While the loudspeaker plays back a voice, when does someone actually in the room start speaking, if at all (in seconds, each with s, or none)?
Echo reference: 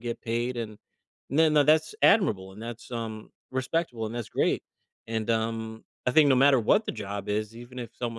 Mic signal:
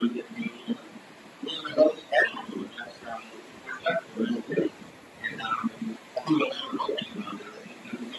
none